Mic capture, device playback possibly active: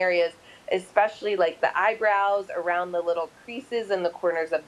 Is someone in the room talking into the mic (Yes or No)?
No